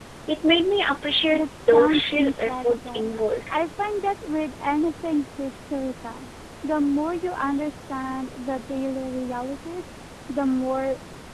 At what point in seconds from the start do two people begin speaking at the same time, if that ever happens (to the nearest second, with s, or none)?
1 s